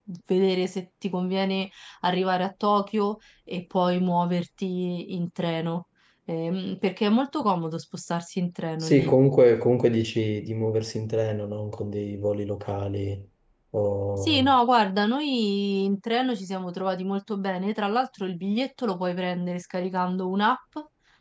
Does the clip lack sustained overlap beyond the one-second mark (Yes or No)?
Yes